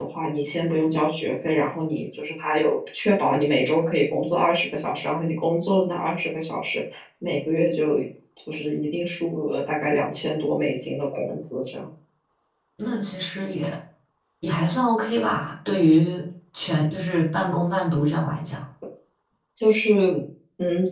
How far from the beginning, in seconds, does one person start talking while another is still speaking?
none

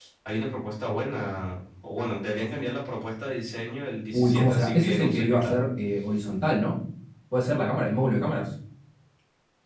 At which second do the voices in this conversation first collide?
4.1 s

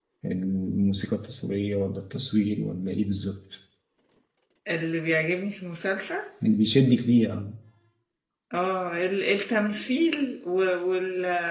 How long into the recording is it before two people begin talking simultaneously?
none

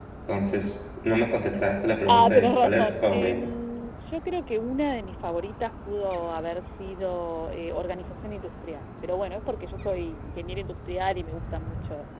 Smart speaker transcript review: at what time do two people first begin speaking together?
2.1 s

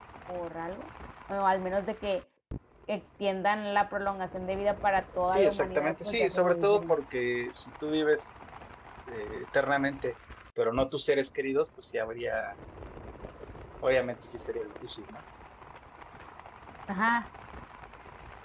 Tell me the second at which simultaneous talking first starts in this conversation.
5.3 s

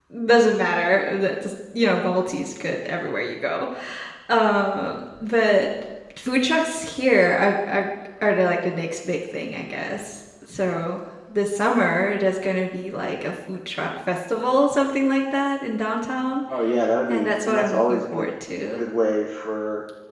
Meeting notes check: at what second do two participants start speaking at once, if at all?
17.1 s

